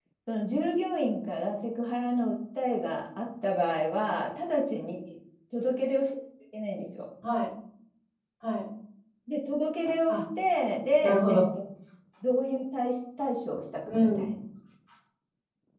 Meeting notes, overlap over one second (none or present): none